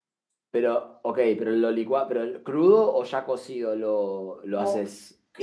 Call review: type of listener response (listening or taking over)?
taking over